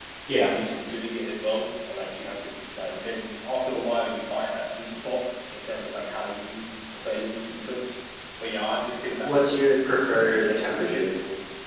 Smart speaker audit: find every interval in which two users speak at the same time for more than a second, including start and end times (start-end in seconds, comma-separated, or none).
9.2-11.1